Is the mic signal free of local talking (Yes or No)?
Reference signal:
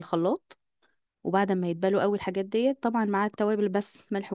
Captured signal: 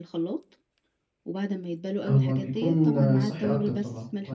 No